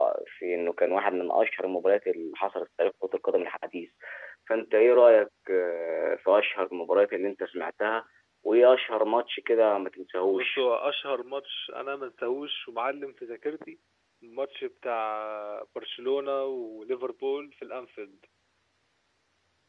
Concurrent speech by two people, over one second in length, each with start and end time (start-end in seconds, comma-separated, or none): none